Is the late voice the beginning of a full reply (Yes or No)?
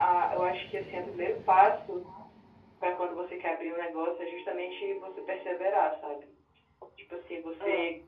No